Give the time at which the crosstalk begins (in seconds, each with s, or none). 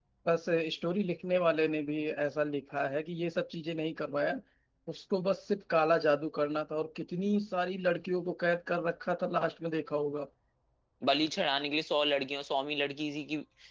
none